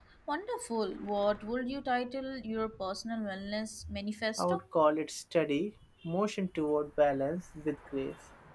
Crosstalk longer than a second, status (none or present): none